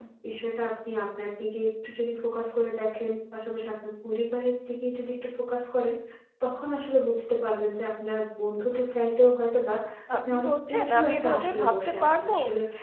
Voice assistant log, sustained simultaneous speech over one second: present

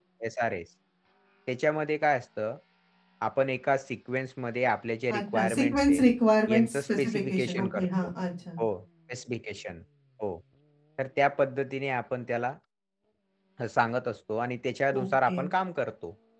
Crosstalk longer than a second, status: present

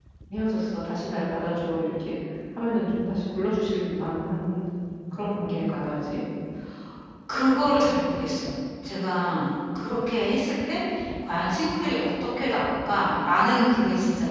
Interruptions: none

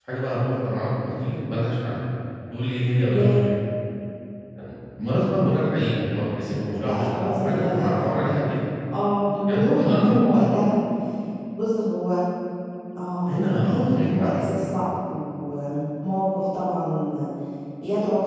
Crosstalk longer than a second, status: present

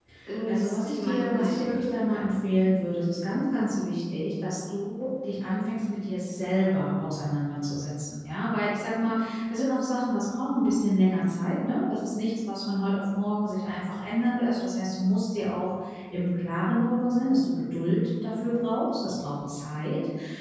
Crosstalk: present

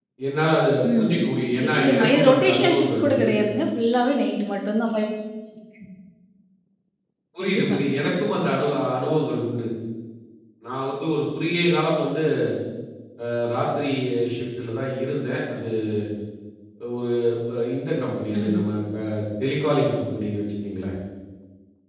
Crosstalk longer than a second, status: present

